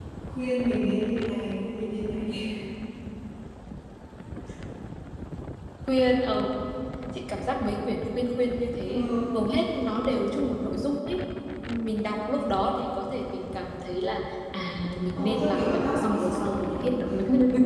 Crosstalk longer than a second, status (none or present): present